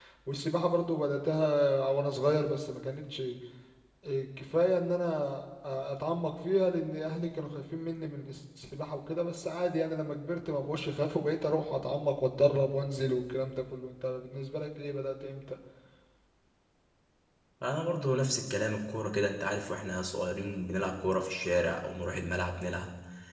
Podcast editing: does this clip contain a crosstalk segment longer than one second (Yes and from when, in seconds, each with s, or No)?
No